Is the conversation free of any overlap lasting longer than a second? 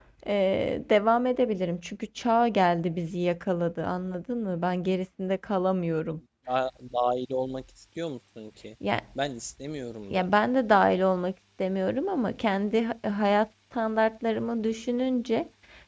Yes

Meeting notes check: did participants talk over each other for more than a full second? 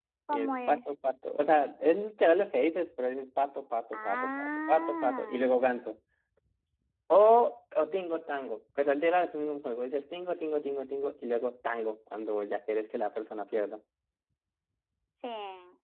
Yes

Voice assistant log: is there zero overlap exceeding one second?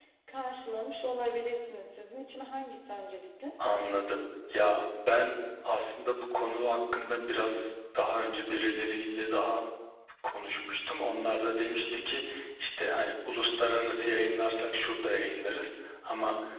Yes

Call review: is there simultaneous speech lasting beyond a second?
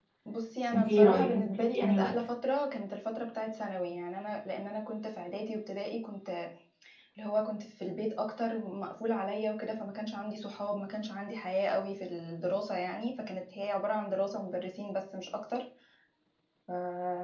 Yes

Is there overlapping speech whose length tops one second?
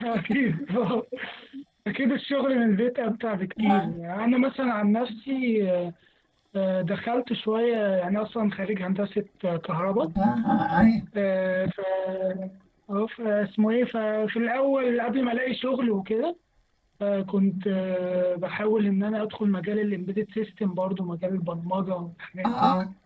No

